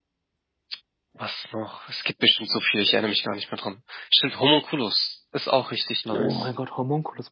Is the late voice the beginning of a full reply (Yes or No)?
Yes